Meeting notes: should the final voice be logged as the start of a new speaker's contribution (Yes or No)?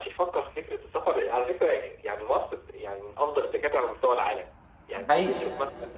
No